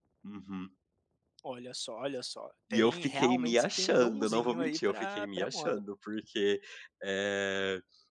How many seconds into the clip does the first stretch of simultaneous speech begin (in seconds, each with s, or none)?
2.7 s